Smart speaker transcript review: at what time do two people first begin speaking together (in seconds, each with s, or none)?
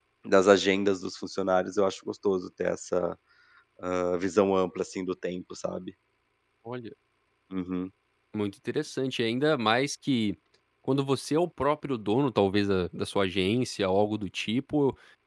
none